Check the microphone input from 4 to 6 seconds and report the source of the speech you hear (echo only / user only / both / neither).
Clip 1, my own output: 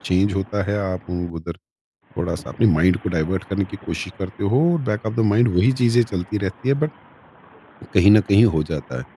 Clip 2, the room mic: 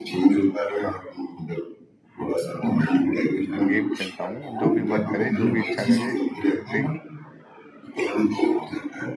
both